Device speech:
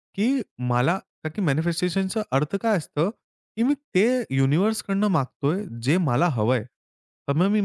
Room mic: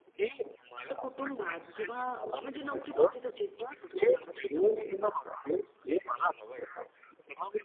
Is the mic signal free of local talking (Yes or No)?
No